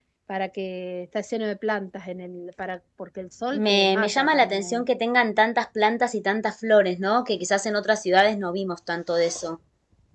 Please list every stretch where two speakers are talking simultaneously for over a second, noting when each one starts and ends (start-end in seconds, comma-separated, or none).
3.5-4.8